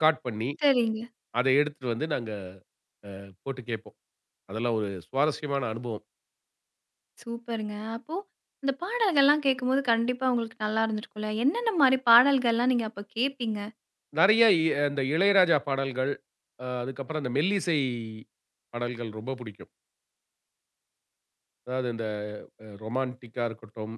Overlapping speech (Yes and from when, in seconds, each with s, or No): No